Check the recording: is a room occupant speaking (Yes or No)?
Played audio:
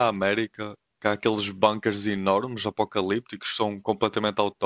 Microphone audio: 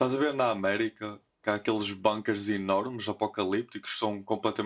No